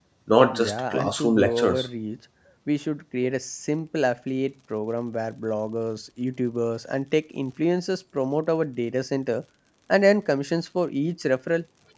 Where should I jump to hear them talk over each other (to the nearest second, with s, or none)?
1 s